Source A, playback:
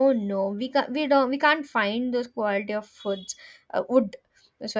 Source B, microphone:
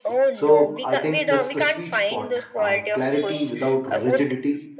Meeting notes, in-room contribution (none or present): present